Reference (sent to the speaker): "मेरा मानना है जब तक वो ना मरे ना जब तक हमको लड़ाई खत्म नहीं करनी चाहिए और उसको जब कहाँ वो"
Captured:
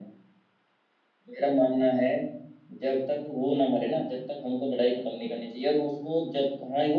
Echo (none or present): present